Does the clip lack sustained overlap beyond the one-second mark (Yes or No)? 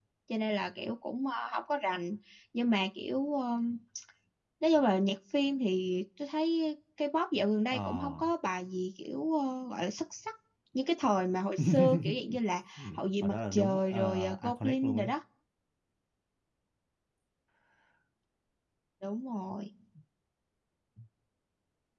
No